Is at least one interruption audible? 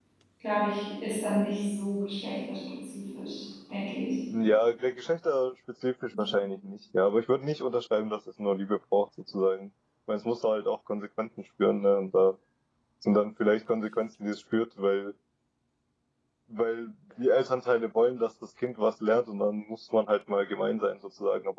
No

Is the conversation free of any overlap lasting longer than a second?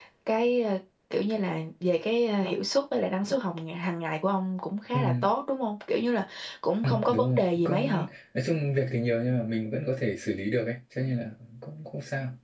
No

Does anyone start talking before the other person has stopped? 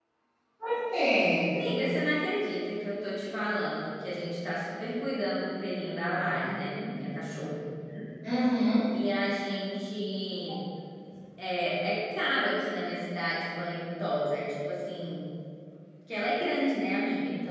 No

